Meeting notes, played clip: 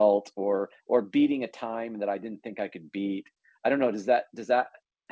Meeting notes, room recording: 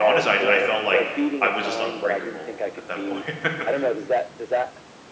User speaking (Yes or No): Yes